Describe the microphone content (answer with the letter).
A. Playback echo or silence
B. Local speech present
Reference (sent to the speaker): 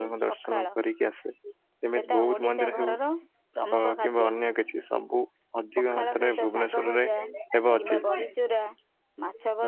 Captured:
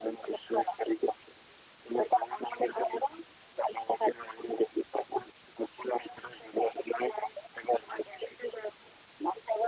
A